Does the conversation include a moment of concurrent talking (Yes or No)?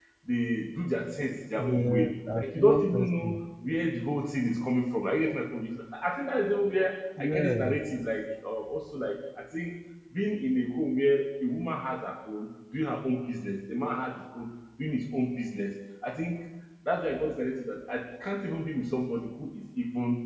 Yes